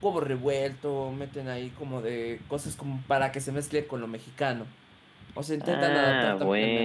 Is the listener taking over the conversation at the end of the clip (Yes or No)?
Yes